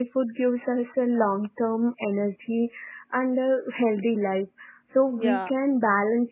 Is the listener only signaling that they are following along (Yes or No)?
Yes